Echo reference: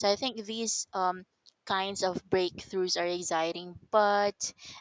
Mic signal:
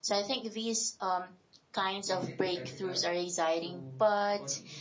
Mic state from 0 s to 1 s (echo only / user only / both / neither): echo only